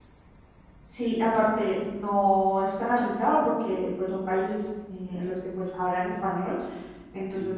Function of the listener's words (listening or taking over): listening